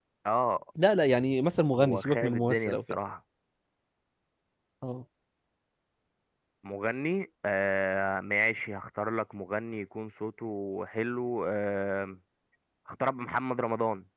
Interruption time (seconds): 1.7 s

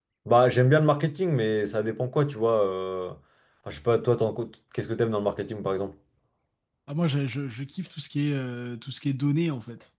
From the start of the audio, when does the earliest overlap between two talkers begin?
none

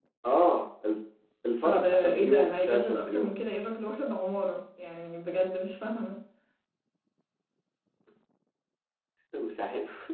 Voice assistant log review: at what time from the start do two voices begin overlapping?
1.6 s

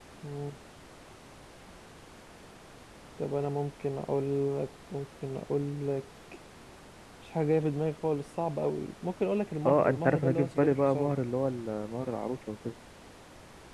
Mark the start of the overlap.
9.7 s

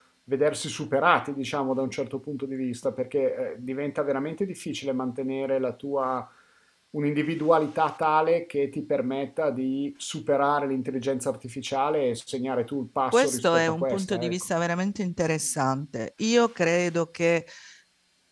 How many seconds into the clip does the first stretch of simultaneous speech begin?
13.1 s

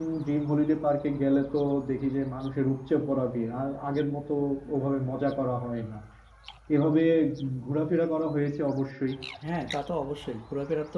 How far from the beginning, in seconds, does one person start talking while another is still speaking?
none

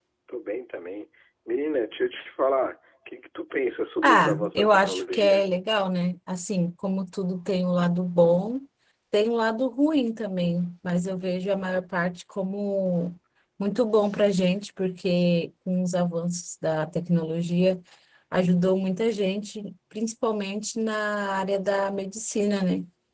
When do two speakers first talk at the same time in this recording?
4.0 s

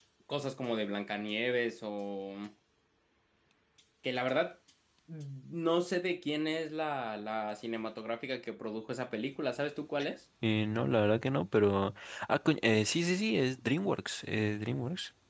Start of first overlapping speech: none

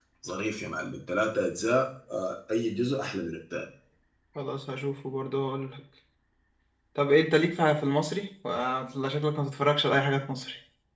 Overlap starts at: none

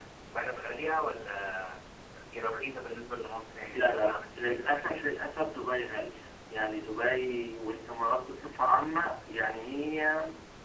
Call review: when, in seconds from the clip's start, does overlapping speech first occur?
3.7 s

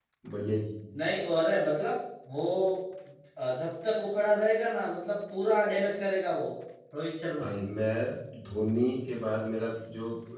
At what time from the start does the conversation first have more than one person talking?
none

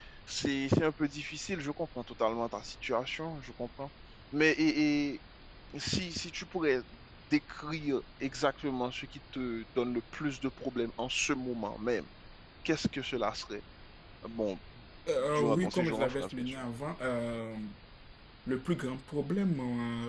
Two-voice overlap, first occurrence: 15.2 s

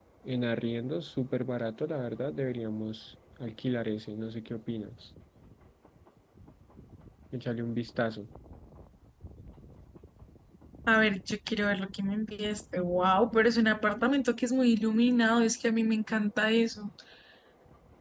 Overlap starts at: none

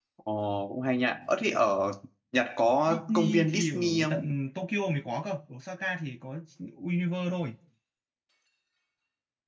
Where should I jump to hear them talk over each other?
2.9 s

